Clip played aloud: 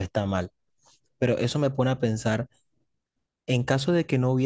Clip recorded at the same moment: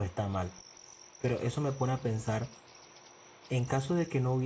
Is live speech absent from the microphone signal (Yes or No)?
Yes